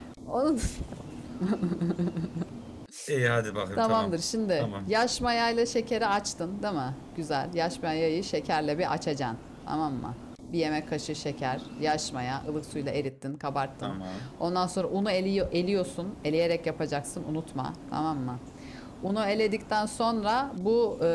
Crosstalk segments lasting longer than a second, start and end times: none

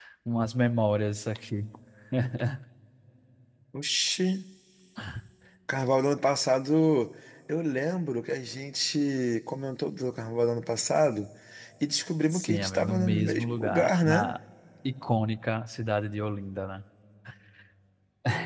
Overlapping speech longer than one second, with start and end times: 12.3-14.3

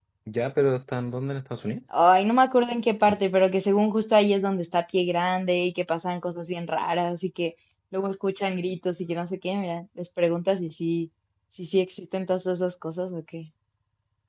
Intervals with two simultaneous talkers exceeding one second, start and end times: none

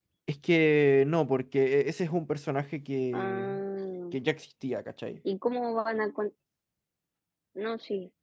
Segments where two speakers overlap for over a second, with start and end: none

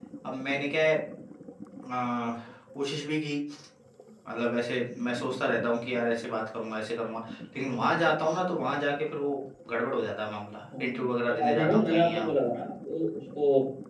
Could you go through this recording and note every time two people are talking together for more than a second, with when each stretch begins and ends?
10.8-12.2

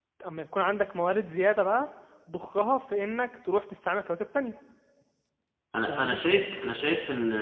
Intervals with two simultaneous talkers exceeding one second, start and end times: none

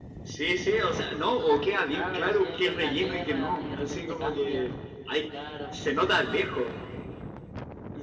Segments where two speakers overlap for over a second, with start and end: 1.9-4.7

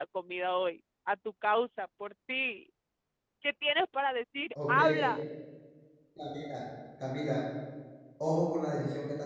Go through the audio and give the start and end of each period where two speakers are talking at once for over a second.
none

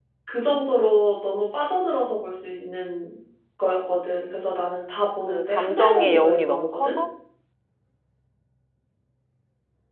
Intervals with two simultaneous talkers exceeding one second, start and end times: 5.3-6.9

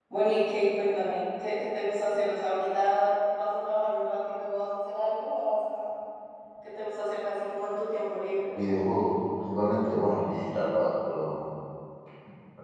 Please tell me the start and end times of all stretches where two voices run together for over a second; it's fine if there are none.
none

